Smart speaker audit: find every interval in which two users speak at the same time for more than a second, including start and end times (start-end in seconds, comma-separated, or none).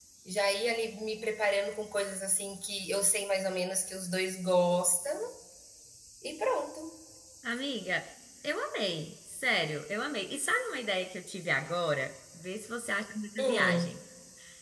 none